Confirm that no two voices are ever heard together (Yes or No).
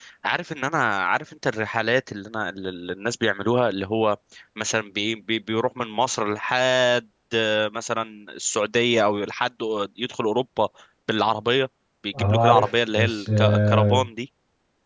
No